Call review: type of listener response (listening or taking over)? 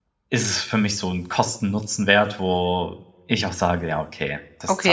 taking over